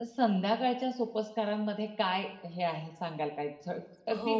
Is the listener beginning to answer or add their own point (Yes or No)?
Yes